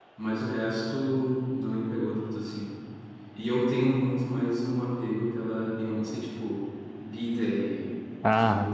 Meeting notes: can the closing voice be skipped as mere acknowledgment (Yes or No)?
Yes